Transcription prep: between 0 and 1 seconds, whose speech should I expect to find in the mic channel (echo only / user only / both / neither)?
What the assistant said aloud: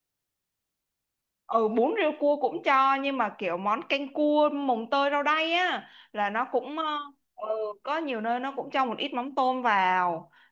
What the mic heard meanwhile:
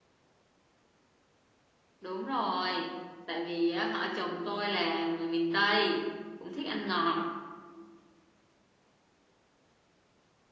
neither